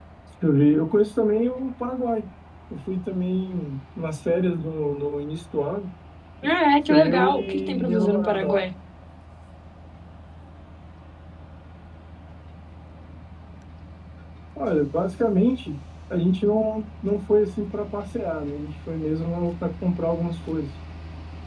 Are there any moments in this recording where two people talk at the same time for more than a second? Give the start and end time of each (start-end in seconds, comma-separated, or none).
6.9-8.7